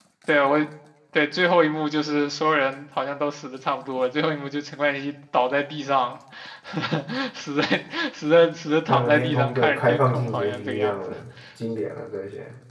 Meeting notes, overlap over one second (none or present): present